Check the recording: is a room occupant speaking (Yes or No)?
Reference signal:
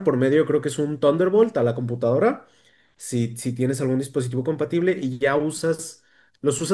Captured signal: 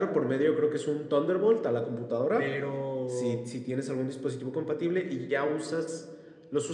Yes